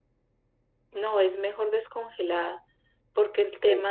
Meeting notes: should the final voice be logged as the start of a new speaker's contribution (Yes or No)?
No